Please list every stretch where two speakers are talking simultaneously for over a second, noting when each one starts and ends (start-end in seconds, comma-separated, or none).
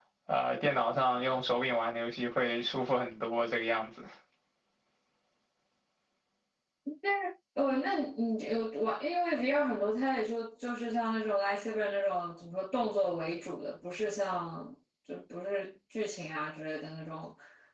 none